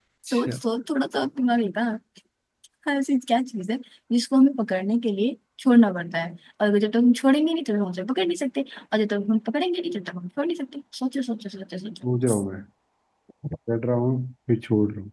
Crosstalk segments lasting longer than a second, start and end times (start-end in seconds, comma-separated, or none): none